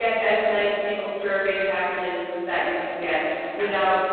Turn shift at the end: No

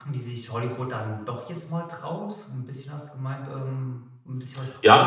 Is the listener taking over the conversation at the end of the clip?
Yes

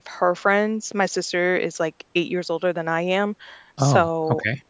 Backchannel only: Yes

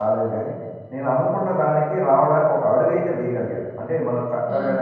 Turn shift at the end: No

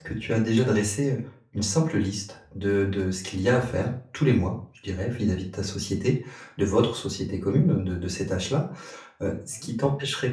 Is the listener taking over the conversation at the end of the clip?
No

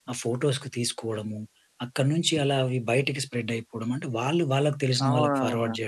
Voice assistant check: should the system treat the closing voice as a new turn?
No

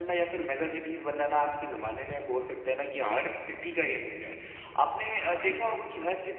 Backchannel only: Yes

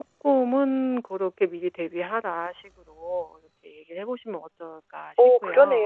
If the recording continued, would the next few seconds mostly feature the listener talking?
Yes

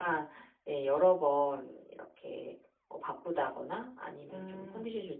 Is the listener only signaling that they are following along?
Yes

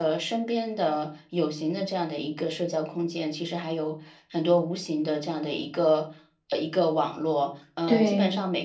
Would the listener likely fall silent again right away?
Yes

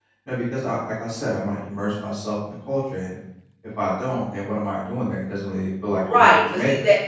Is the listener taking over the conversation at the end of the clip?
Yes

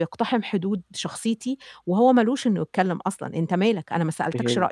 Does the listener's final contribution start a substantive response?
Yes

